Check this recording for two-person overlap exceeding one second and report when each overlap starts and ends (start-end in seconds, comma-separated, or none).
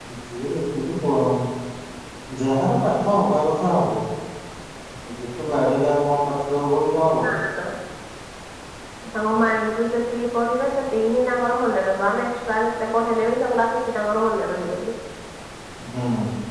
none